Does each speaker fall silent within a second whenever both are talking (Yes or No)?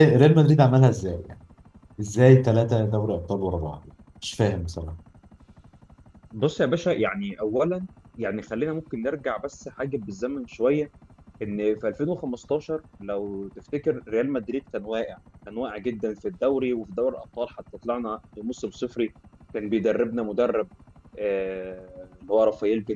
Yes